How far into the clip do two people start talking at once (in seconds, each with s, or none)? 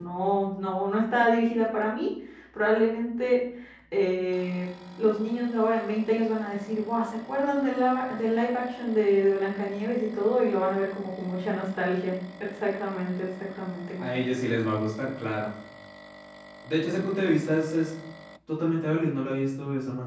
none